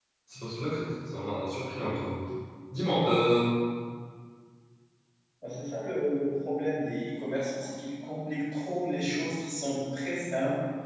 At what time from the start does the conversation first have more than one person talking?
none

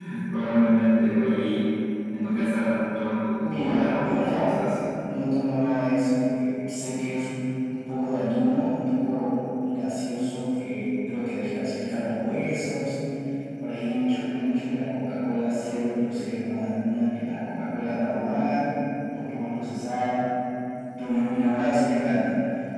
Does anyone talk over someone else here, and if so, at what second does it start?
3.4 s

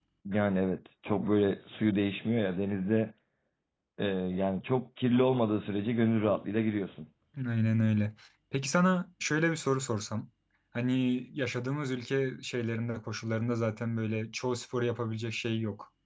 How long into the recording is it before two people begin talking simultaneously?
none

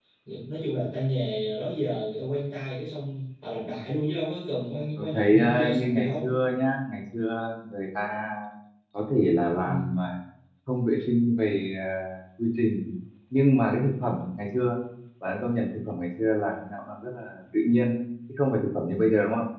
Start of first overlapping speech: 5.0 s

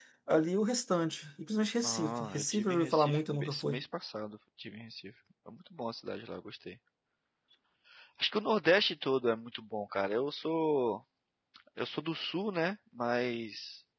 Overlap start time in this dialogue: 1.8 s

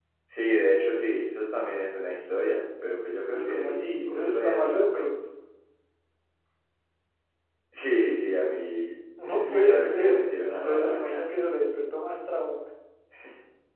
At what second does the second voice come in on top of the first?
3.3 s

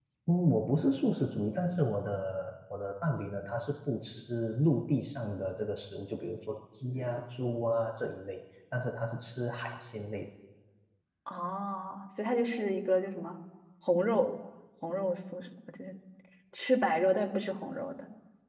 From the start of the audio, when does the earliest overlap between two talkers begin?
none

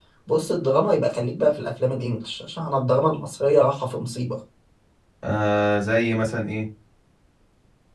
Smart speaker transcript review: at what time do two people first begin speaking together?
none

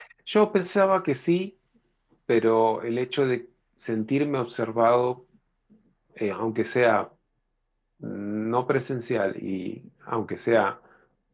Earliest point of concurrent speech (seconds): none

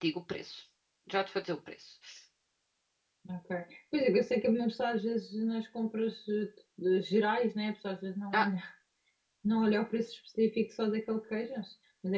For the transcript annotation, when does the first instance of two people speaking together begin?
none

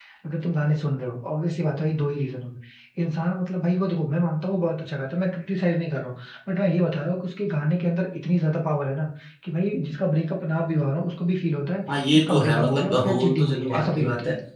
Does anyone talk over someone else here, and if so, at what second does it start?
11.9 s

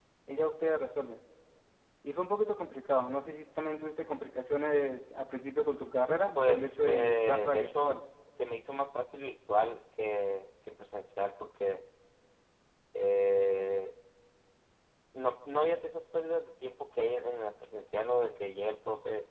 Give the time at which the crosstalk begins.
6.4 s

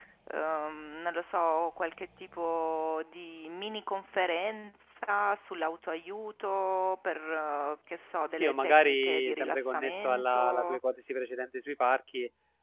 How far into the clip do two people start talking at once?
8.3 s

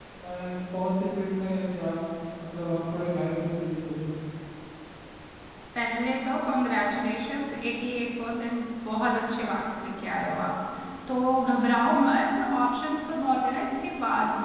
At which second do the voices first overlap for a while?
none

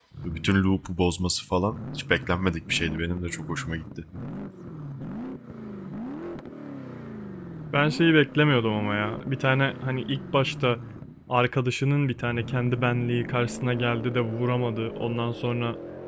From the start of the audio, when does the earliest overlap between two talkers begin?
none

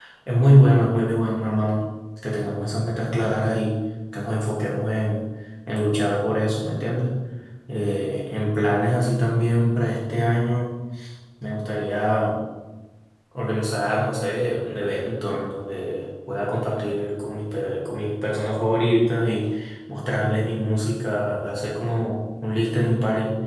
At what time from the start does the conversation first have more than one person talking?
none

